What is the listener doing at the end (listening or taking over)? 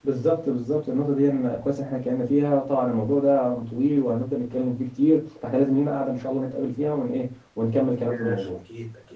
taking over